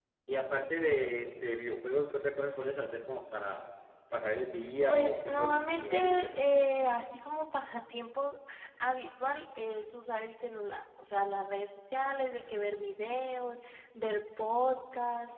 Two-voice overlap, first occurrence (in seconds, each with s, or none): 4.9 s